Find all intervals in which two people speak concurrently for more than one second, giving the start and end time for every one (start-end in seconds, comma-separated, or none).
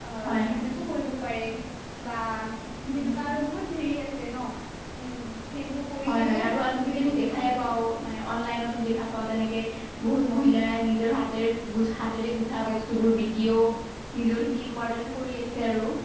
6.0-7.5